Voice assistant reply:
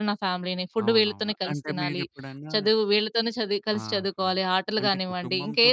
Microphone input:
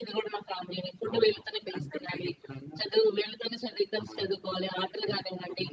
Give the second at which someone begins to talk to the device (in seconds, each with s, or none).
none